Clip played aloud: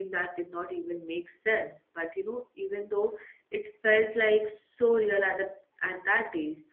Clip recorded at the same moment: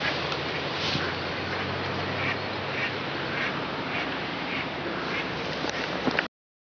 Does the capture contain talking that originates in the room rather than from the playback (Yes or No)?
No